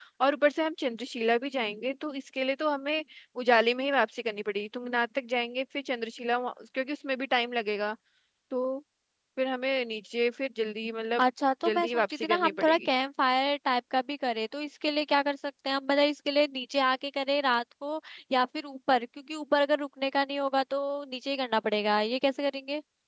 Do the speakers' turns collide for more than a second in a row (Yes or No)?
Yes